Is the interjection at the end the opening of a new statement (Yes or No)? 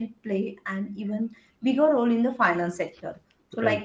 No